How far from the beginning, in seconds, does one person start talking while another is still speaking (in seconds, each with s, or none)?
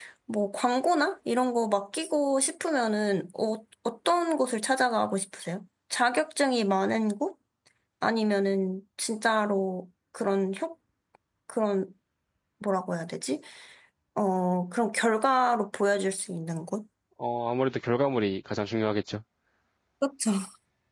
none